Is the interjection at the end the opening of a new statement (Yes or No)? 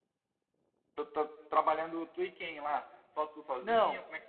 Yes